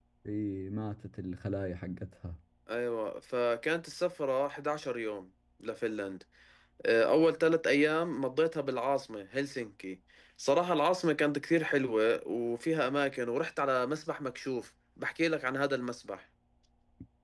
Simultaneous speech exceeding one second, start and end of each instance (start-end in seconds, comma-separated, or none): none